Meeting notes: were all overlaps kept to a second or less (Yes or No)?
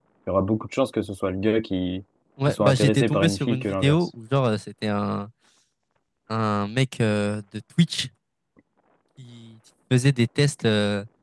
No